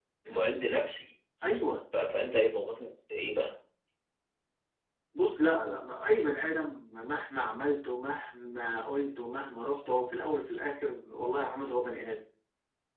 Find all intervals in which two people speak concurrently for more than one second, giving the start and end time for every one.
none

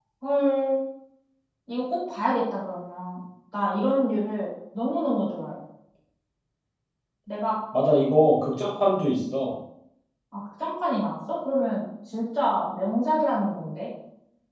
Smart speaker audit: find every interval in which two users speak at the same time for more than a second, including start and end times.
none

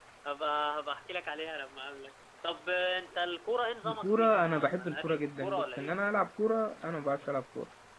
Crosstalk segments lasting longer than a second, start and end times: 3.8-5.9

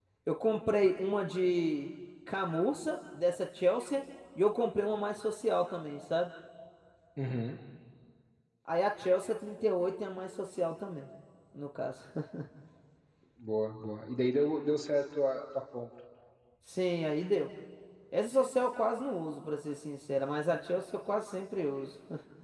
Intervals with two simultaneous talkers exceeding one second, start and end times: none

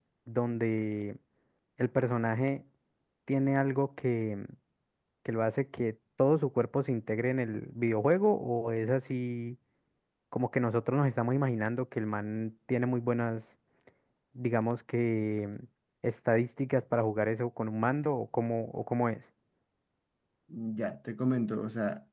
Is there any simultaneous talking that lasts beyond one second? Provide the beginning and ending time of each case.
none

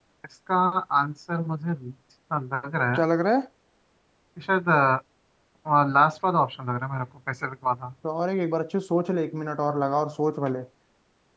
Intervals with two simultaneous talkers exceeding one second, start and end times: none

